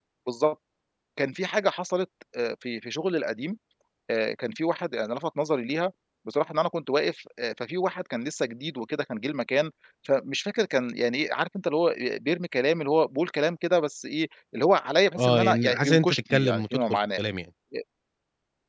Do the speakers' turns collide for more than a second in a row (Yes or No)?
Yes